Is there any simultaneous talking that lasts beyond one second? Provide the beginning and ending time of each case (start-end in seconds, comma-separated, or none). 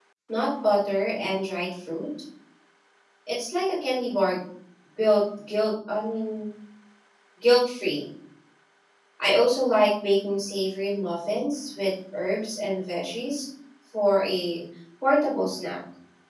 none